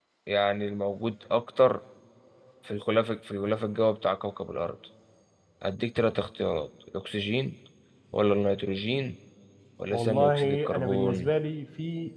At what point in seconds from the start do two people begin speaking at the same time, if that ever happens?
9.9 s

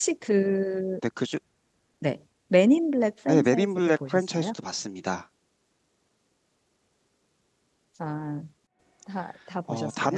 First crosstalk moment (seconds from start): 3.3 s

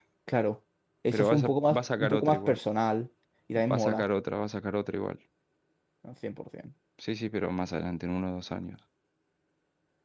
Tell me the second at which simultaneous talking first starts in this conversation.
1.1 s

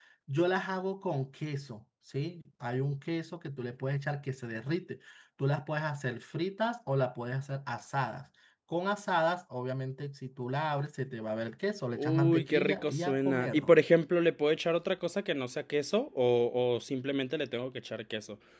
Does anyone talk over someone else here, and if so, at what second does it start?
11.9 s

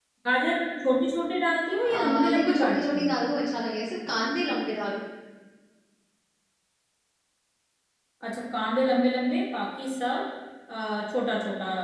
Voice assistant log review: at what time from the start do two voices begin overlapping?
1.8 s

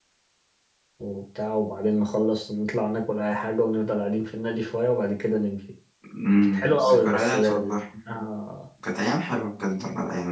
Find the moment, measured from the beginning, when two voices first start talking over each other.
6.4 s

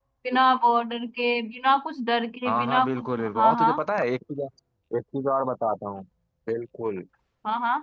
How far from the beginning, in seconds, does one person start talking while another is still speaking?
2.5 s

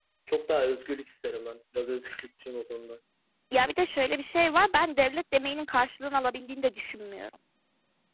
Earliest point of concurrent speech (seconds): none

